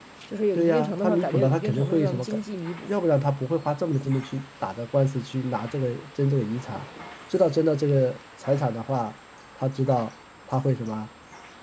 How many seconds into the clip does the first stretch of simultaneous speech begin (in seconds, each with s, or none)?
0.6 s